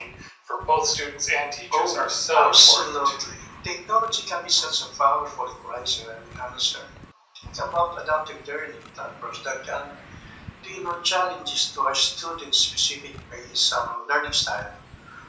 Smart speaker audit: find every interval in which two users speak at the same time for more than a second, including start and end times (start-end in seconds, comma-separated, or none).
1.7-2.9